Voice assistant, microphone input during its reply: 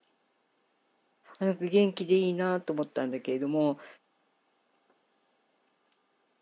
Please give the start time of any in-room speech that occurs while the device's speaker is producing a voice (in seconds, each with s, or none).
1.4 s